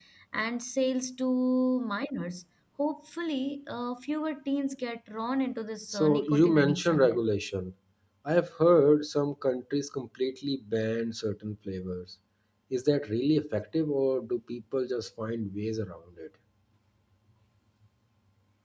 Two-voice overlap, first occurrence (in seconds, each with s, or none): 5.9 s